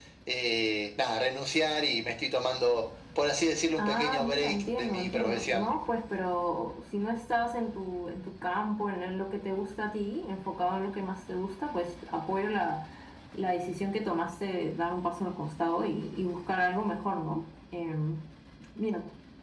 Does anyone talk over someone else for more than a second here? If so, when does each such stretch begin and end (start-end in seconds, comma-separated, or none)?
3.8-5.7